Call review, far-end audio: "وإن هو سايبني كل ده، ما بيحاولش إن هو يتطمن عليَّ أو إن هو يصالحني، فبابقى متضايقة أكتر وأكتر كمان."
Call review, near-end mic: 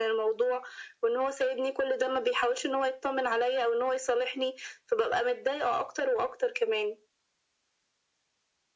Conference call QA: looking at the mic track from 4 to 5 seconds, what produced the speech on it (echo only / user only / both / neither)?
echo only